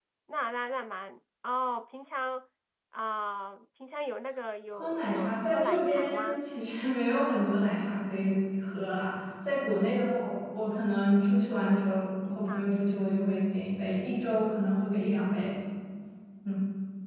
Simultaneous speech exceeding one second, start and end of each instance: 4.7-6.4

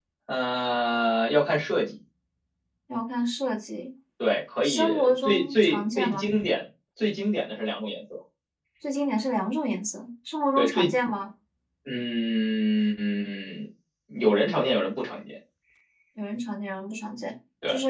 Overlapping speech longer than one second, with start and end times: 4.6-6.3

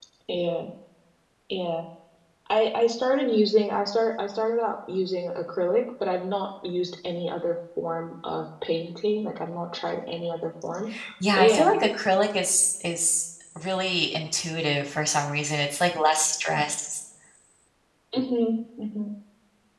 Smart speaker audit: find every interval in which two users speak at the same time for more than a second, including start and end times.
none

